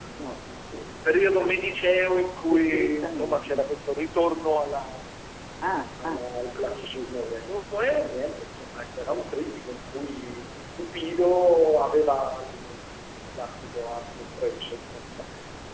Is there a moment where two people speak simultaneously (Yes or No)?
Yes